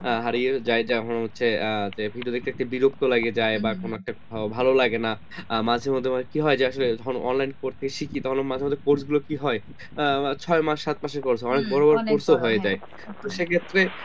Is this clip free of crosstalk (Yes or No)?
No